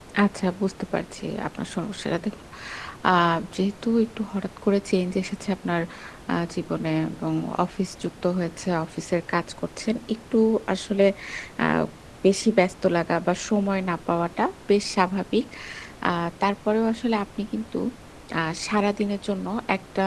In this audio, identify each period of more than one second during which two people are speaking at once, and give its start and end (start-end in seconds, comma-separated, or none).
none